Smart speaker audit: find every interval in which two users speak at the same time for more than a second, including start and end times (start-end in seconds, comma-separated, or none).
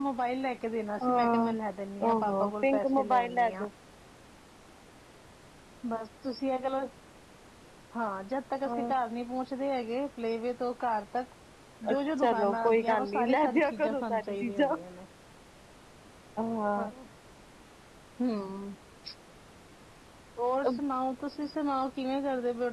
2.0-3.6, 11.9-14.8